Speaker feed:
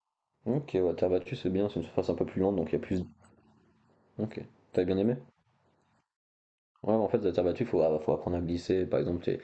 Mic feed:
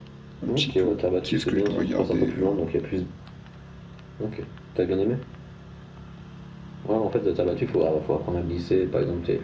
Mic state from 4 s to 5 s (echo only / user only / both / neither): echo only